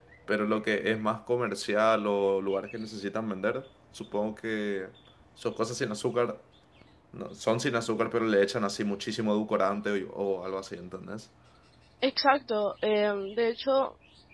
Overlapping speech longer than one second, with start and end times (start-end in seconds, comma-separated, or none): none